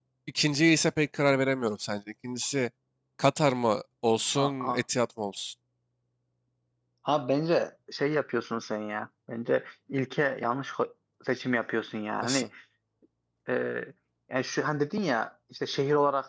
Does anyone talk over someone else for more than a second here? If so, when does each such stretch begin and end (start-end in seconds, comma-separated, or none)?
none